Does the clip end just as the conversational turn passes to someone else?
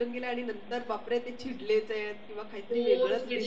Yes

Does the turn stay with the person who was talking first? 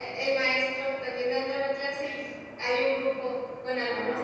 Yes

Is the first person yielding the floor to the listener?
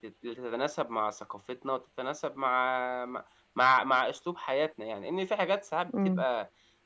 No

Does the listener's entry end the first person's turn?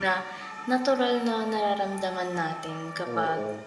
No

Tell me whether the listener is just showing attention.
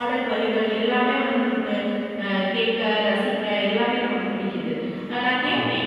Yes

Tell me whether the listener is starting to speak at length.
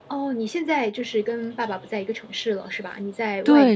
Yes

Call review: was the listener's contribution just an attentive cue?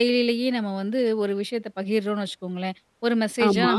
Yes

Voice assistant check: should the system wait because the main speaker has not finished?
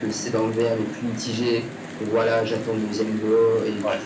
Yes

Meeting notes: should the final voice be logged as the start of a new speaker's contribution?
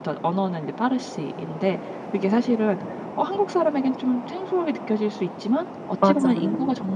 No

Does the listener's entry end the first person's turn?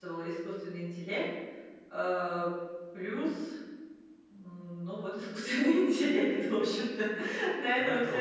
Yes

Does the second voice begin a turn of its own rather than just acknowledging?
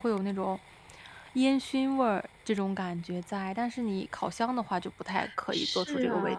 Yes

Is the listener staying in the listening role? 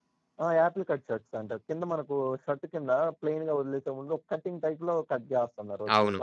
No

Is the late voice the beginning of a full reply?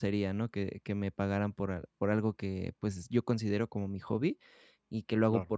No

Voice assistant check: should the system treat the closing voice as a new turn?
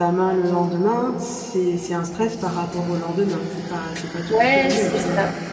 Yes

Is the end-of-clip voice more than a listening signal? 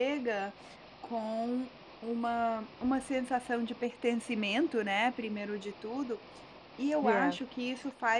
No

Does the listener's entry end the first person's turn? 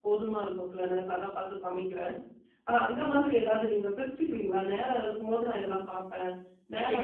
Yes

